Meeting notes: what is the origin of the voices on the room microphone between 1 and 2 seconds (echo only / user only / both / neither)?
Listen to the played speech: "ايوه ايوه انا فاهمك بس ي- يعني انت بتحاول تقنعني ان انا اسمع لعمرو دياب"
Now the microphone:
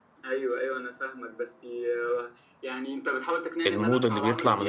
echo only